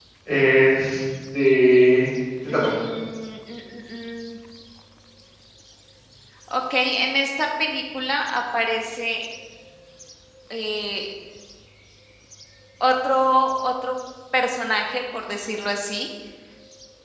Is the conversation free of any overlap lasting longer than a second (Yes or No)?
Yes